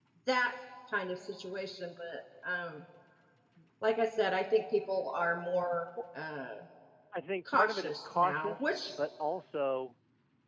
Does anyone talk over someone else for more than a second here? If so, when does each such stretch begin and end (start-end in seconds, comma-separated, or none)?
7.5-8.9